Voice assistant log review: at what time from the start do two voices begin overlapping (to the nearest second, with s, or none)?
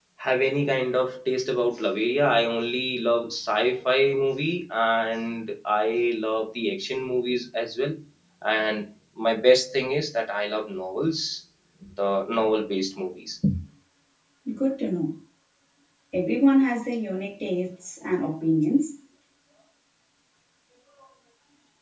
none